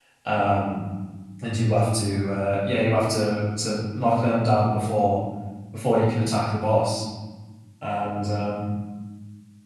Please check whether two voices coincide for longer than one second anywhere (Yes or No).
No